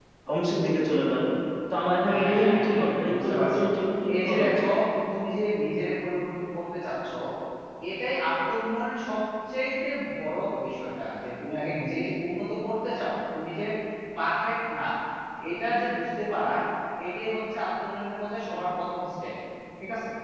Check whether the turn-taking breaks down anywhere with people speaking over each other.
Yes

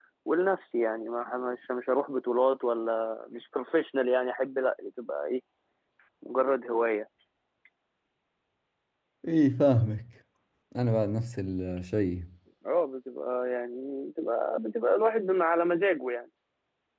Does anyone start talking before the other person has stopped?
No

